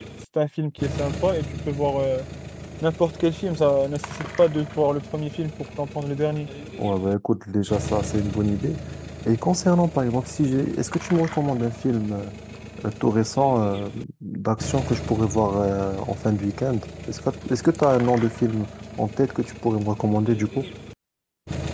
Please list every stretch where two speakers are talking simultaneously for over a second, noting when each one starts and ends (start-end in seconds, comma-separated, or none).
none